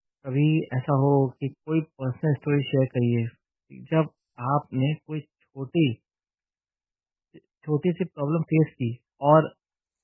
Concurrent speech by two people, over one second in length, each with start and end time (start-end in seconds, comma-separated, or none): none